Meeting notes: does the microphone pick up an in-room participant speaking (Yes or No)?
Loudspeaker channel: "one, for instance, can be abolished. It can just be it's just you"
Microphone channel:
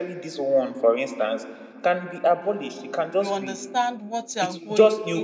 Yes